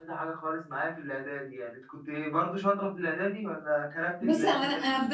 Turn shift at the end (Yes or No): Yes